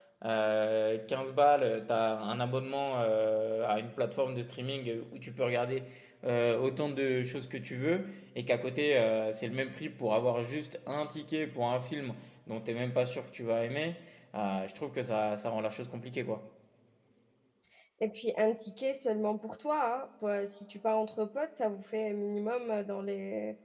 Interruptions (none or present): none